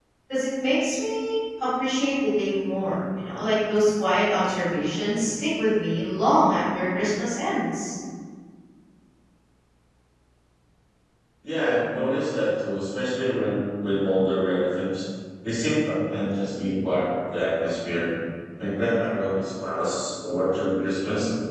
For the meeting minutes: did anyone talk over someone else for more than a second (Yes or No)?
No